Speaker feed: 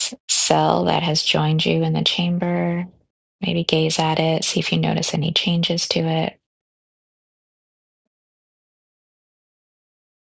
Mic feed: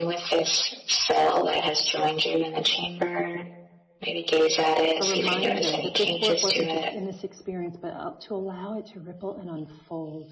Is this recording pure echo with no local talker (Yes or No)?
No